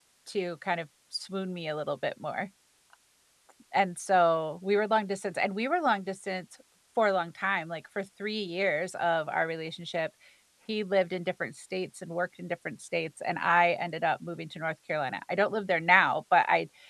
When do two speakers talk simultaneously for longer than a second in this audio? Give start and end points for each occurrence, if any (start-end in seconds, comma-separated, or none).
none